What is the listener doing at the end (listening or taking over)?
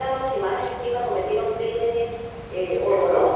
taking over